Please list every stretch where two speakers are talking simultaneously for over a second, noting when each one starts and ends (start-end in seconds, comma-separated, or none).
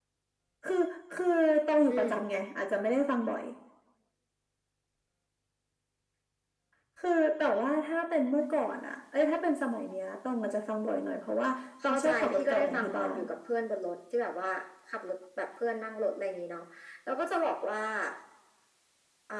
11.8-13.2